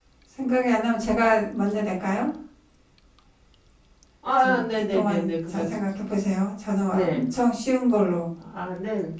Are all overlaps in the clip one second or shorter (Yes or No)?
No